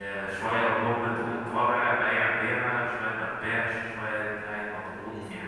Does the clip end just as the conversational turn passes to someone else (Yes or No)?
No